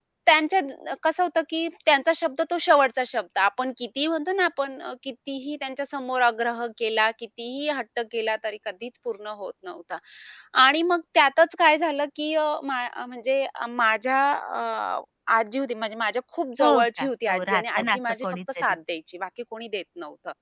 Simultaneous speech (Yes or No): Yes